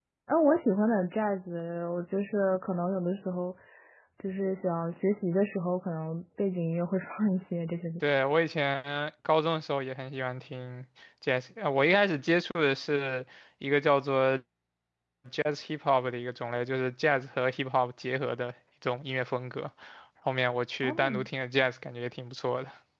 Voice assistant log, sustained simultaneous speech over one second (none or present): none